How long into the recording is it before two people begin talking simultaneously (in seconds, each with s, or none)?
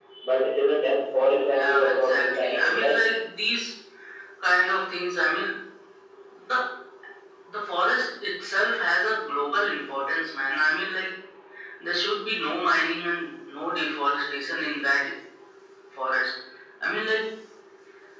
1.5 s